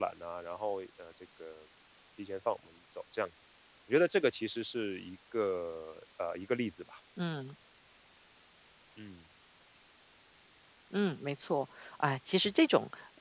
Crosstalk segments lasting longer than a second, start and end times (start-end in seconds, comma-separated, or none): none